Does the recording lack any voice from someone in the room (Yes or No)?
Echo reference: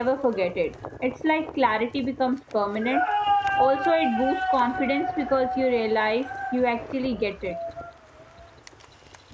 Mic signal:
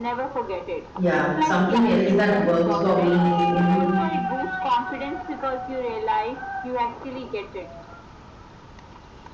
No